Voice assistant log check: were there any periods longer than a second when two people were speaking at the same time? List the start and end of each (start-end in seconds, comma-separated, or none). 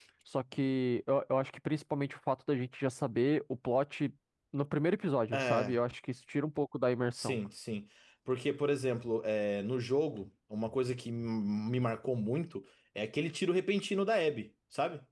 none